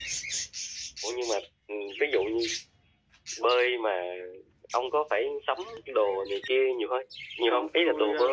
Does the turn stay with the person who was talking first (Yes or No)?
No